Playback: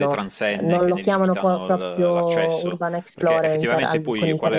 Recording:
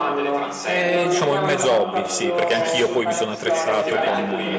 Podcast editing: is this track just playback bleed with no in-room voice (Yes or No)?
No